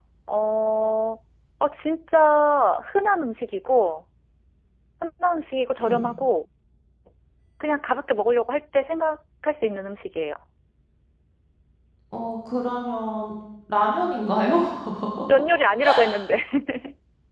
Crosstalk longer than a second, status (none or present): none